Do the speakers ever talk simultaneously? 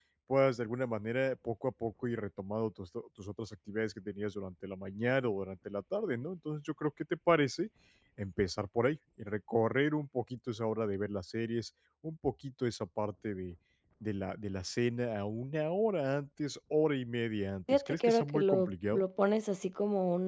Yes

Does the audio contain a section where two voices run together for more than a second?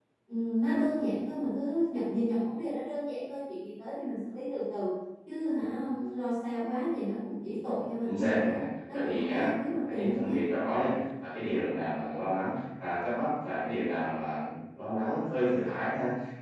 Yes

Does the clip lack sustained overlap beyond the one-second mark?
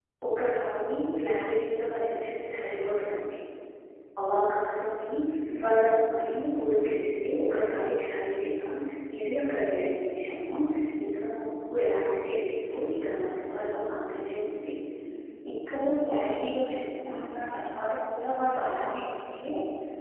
Yes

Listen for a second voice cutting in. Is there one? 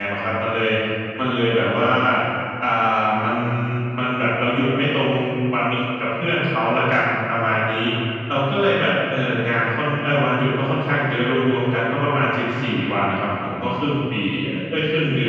No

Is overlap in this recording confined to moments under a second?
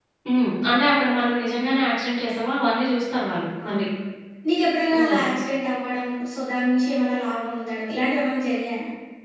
Yes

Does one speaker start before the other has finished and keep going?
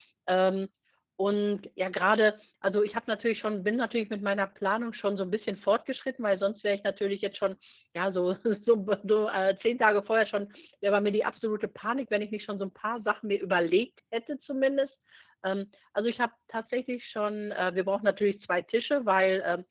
No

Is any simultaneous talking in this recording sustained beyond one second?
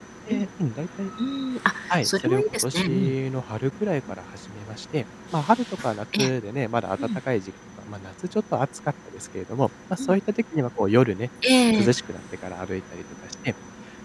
Yes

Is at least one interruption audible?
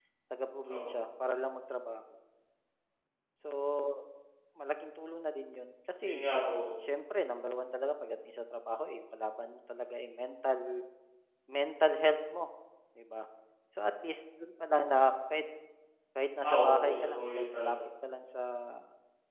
Yes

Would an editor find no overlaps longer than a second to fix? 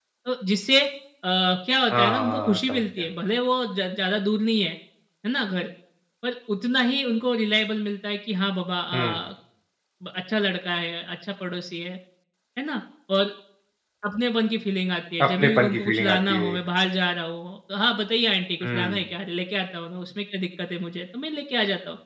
No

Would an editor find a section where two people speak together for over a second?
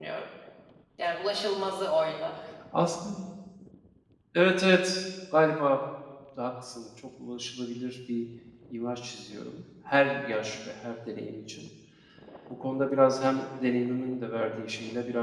No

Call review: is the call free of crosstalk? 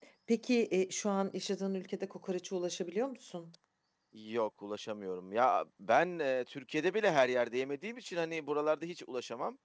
Yes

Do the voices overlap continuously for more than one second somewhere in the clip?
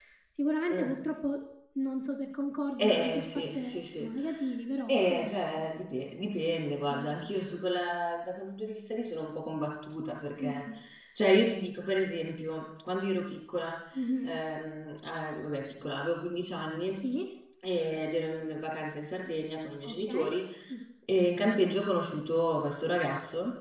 Yes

